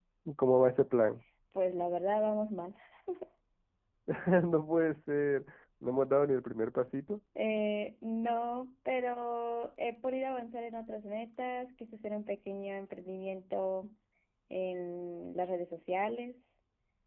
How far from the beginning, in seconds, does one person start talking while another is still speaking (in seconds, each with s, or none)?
none